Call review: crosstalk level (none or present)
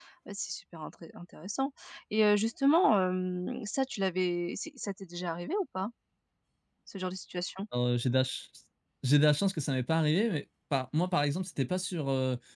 none